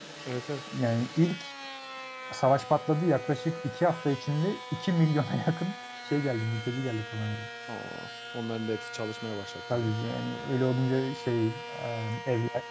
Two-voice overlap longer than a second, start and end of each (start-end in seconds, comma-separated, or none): none